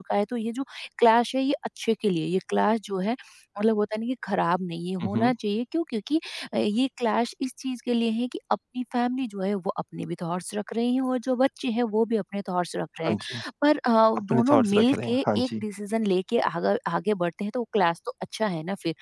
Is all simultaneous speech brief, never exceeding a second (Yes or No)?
No